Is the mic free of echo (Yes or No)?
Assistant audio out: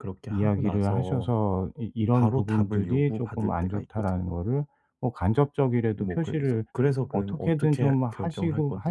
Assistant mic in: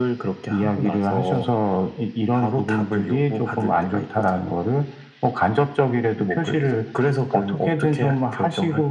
No